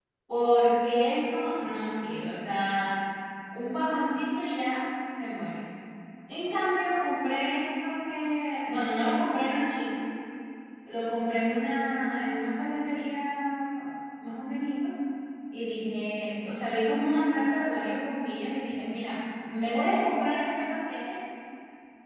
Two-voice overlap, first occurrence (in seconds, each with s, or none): none